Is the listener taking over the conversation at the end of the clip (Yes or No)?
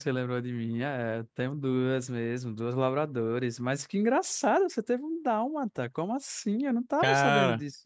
No